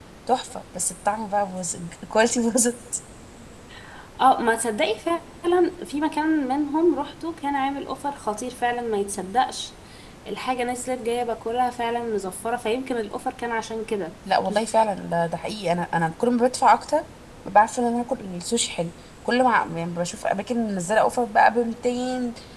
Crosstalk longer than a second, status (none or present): none